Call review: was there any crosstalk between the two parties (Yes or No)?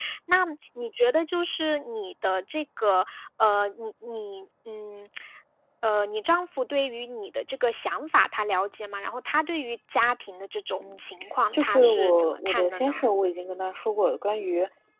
Yes